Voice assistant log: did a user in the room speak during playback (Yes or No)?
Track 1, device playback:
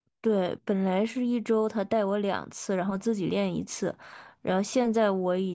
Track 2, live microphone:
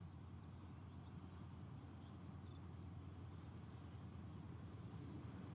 No